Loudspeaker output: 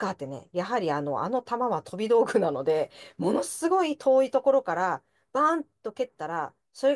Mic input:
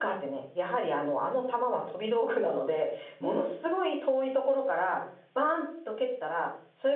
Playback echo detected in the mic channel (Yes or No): Yes